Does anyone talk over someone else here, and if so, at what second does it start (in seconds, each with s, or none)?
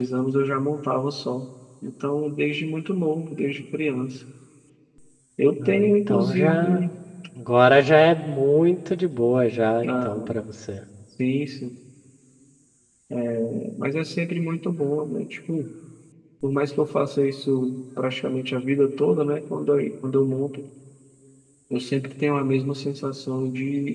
5.6 s